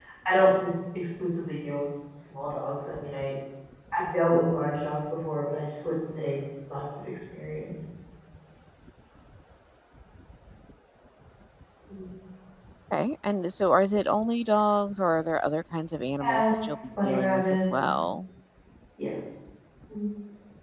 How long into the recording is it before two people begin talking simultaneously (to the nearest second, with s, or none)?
16 s